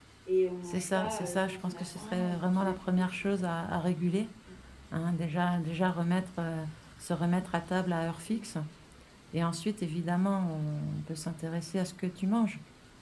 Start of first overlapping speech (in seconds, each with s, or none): 0.7 s